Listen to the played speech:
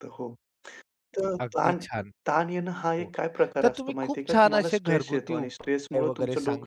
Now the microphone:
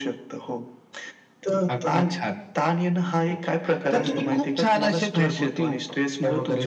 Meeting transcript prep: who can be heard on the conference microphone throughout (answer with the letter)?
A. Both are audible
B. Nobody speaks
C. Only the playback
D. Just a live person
A